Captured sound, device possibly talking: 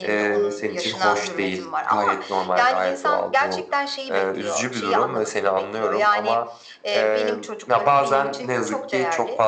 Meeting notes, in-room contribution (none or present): none